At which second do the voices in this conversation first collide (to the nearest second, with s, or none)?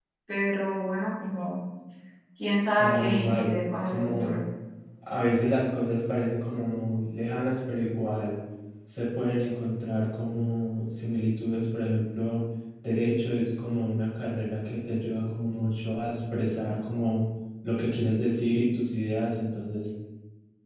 3 s